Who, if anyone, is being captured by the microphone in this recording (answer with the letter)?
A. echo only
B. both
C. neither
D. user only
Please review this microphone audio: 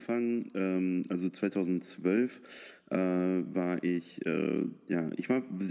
A